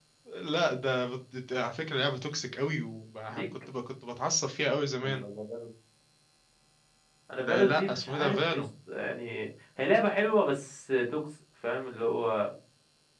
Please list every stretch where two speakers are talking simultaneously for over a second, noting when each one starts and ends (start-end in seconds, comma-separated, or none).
7.4-8.6